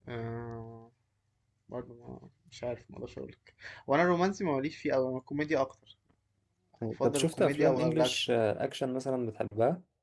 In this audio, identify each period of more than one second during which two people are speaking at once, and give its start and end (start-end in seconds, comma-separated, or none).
7.0-8.3